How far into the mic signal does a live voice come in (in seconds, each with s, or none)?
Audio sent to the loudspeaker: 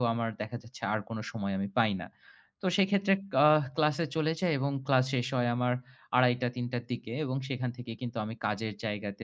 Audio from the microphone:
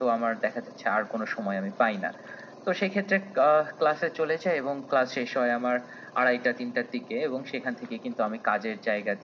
none